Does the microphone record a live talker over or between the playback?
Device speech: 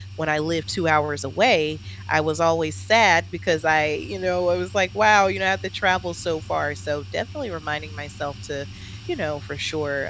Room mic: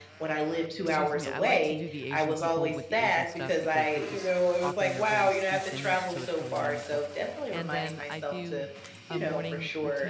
Yes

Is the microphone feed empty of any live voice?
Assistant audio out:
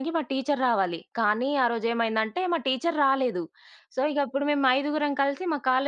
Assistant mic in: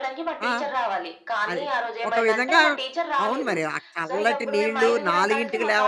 No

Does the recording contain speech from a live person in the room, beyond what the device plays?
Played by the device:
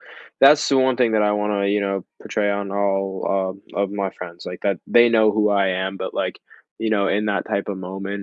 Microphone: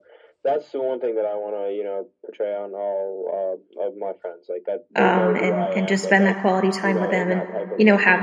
Yes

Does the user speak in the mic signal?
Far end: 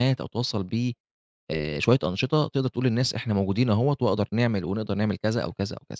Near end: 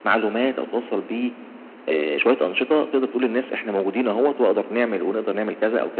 No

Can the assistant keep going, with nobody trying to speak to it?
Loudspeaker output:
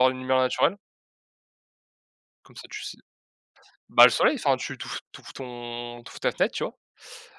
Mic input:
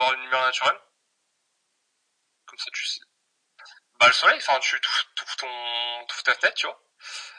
Yes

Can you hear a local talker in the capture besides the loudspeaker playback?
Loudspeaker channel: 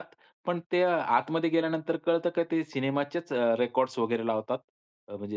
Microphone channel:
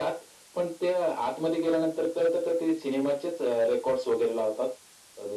No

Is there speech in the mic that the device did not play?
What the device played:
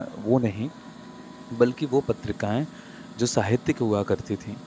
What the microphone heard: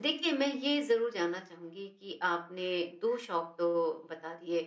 Yes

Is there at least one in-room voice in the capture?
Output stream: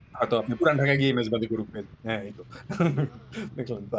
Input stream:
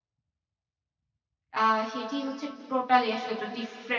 Yes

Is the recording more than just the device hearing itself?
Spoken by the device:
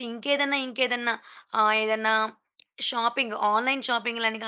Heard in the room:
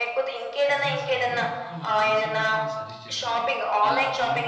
Yes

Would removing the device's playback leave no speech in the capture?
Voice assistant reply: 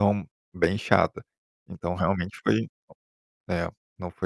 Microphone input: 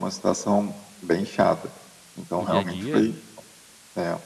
No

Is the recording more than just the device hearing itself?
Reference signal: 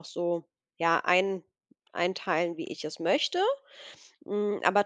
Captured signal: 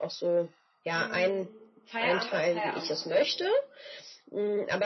Yes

